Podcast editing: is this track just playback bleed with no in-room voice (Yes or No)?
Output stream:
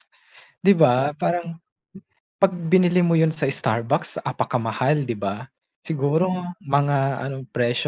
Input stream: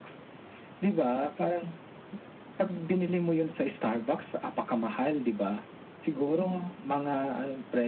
Yes